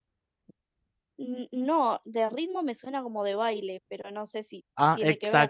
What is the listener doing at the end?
taking over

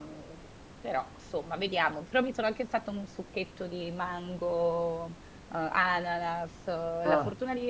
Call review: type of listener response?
listening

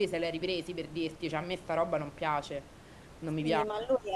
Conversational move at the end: taking over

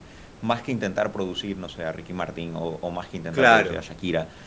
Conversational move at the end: listening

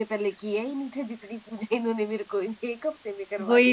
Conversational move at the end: taking over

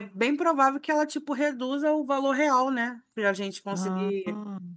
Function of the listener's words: listening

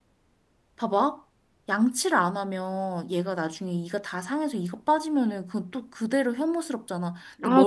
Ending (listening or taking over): listening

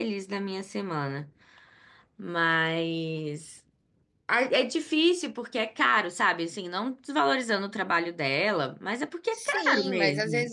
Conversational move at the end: taking over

